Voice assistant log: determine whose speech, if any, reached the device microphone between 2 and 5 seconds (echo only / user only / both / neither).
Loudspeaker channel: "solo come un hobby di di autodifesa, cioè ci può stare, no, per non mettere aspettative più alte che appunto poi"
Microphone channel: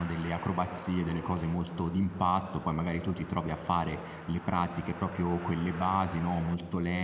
user only